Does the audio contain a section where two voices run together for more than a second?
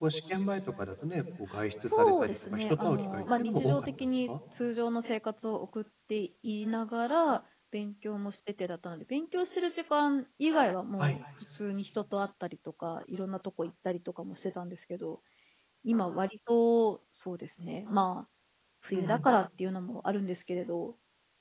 Yes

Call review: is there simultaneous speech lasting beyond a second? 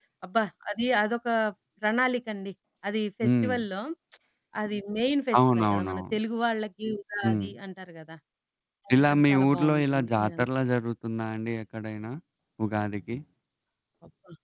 Yes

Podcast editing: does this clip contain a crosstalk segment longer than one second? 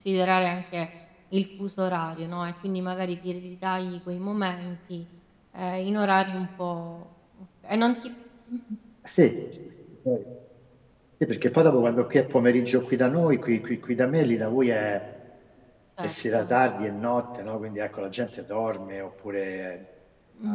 No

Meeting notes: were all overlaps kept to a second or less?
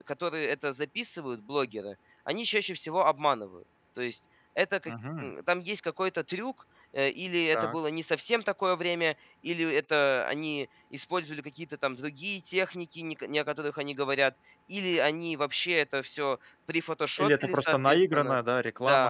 No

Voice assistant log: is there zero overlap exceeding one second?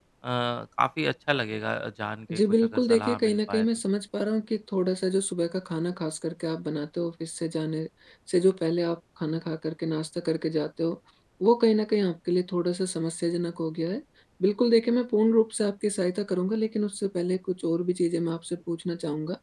No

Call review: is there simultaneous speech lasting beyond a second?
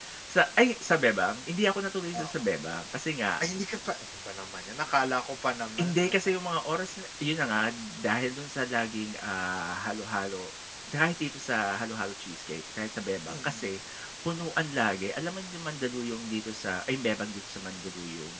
No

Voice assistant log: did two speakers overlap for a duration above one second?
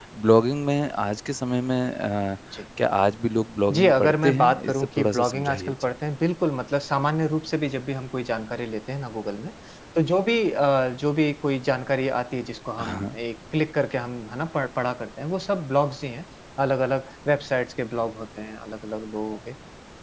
Yes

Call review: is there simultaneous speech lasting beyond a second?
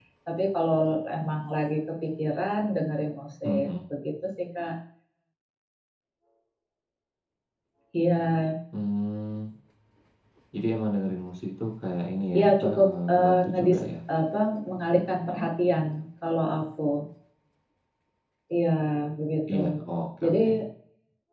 Yes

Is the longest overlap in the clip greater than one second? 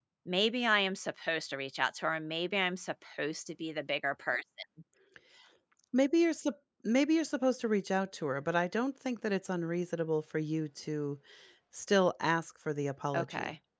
No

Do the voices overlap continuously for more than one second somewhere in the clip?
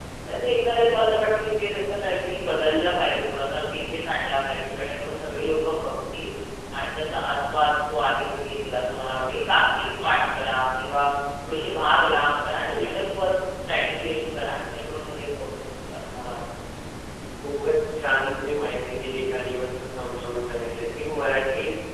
No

